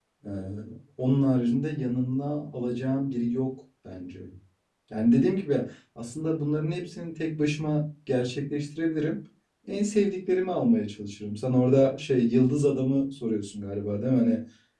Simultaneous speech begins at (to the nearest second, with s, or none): none